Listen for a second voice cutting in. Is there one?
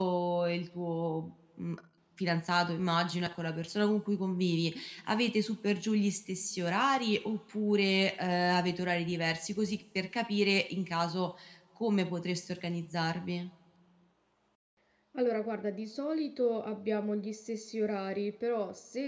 No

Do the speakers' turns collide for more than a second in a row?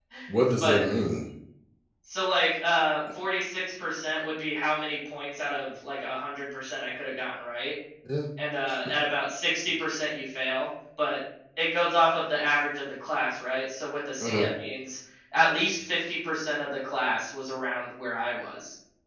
No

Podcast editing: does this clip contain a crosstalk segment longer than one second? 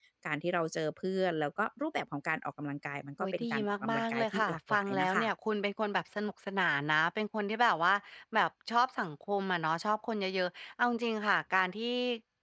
Yes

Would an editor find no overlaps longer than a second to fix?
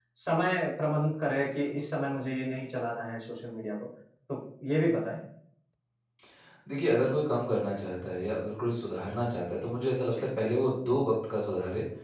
Yes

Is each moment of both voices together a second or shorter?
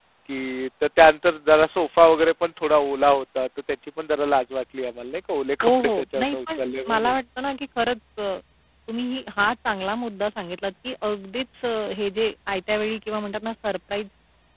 No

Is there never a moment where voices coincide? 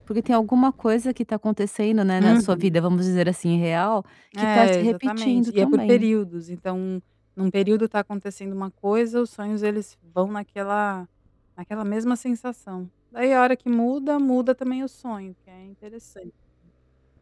No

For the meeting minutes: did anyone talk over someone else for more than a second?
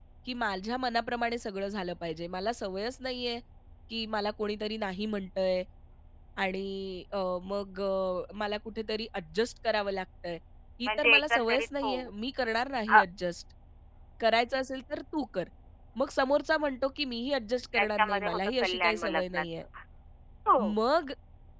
Yes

